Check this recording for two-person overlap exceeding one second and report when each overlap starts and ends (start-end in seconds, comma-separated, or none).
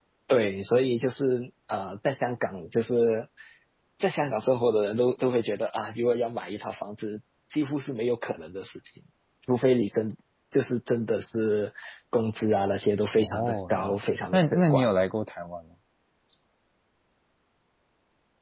13.2-14.9